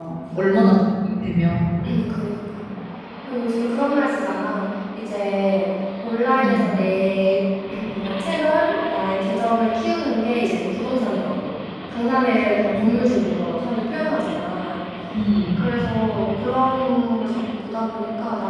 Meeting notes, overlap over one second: none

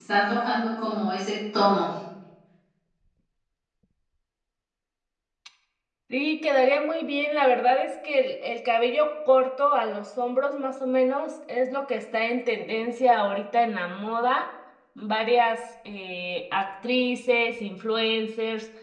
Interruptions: none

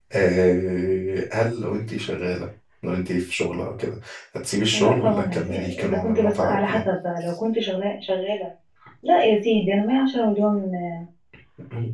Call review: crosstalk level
present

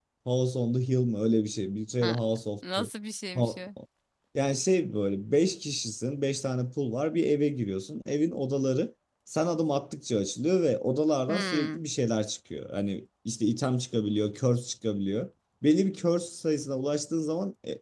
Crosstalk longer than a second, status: none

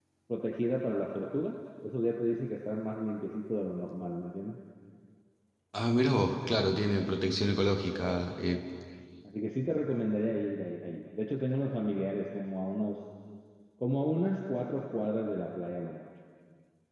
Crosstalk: none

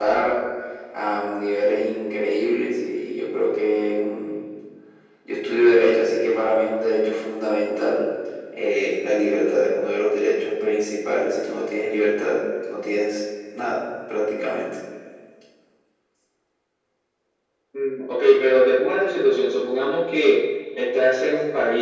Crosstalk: none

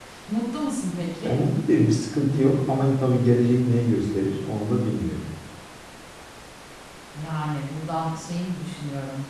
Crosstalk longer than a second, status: none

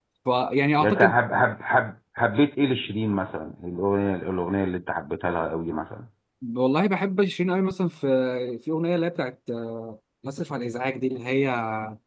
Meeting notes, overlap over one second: none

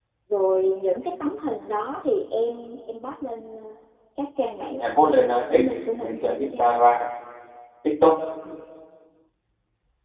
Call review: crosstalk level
present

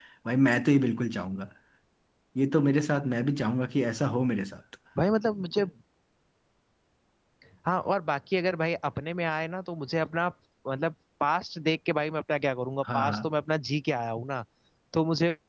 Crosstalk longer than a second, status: none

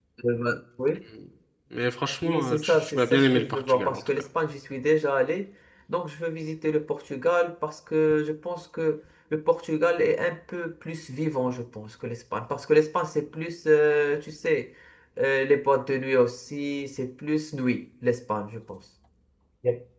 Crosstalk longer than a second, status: present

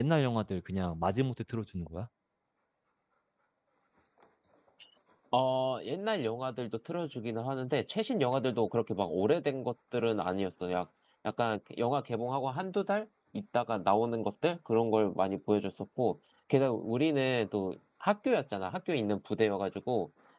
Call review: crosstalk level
none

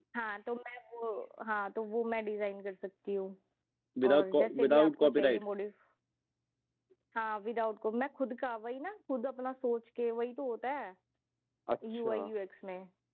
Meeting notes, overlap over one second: present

